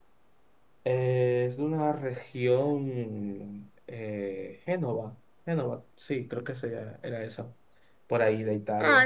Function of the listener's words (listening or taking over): taking over